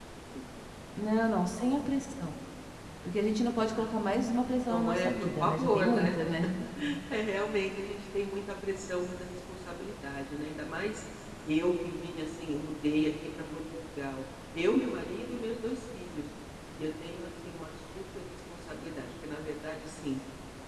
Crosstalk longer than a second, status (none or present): present